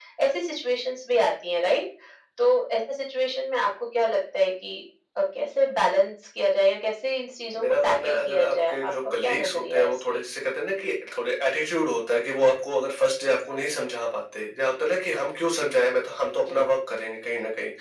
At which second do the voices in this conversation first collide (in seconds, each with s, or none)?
7.5 s